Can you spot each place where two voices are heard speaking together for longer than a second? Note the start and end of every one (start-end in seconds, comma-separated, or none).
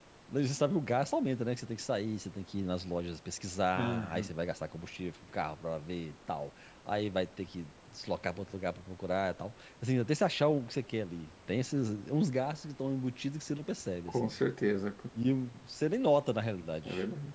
none